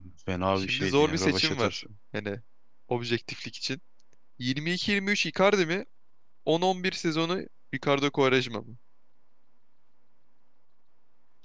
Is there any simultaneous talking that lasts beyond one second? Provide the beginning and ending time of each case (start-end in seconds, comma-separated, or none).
0.6-1.8